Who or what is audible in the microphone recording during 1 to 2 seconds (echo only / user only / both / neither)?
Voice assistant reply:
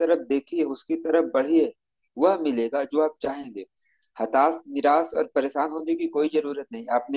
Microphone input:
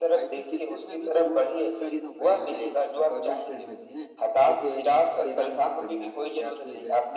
both